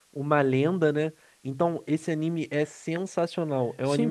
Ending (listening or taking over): taking over